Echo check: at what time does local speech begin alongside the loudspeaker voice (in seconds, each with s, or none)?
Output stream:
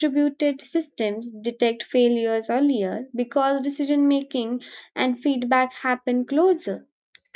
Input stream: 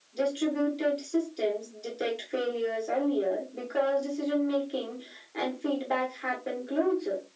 none